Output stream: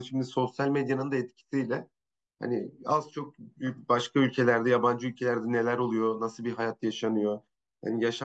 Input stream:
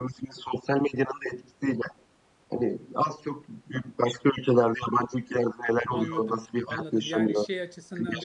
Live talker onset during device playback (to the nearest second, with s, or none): 6 s